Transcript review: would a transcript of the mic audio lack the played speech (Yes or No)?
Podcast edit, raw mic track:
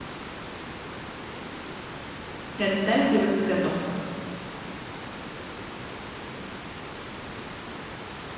Yes